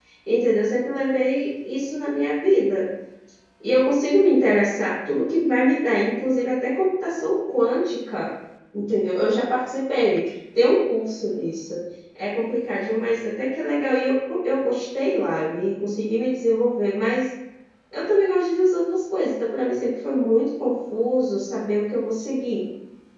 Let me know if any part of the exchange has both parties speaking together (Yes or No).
No